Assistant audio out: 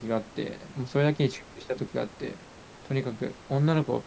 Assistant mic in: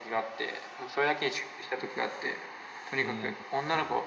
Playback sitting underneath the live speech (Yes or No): No